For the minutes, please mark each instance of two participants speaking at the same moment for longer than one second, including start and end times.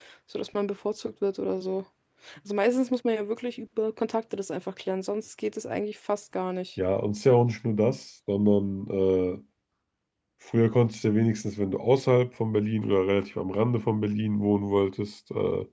none

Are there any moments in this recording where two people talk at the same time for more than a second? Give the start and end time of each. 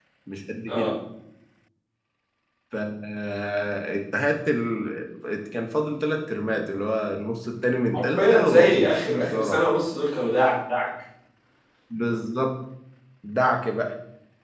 7.9-9.7

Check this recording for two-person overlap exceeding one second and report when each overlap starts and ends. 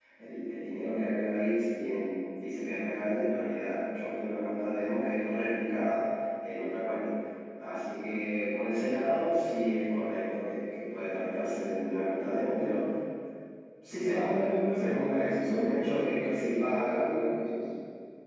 14.1-17.1

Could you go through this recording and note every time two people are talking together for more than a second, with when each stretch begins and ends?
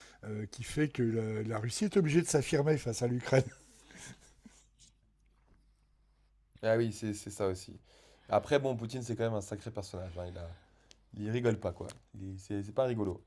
none

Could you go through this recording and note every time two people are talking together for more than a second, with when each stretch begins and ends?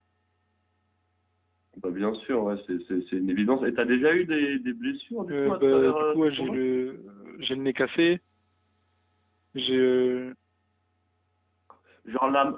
5.3-6.6

